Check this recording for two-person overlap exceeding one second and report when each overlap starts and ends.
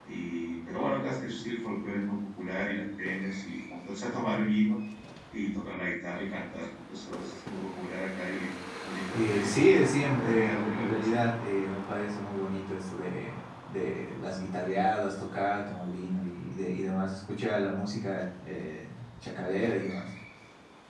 9.1-11.2

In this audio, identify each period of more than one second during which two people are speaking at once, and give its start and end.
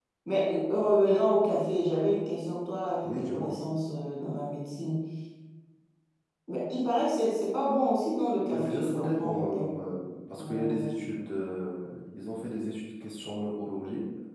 8.5-9.7

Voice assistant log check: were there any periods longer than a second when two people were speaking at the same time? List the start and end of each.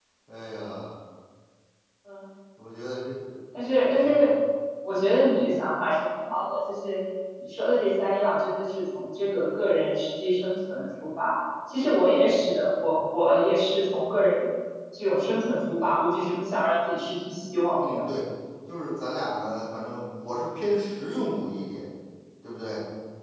none

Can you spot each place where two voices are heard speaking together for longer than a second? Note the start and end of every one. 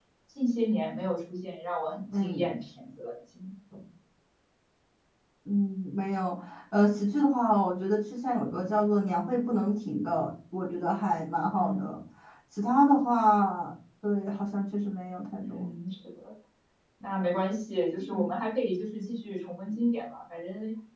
none

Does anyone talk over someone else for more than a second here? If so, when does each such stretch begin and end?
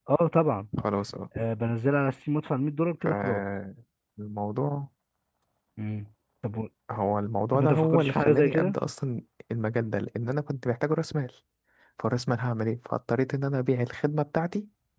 7.5-8.8

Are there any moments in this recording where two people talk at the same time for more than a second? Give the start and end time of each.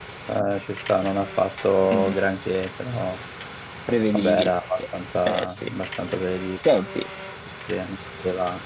none

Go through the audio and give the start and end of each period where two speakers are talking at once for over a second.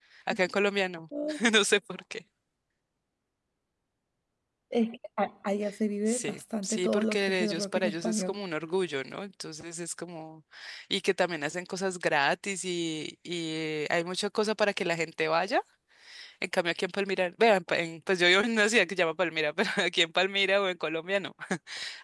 6.1-8.4

